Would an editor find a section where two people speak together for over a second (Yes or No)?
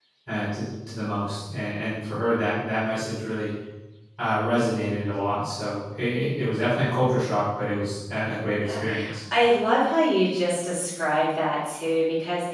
No